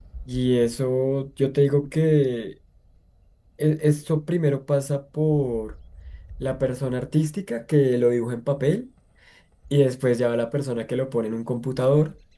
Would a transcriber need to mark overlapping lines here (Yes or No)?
No